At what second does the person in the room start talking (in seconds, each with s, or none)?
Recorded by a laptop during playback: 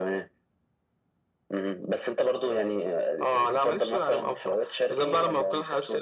none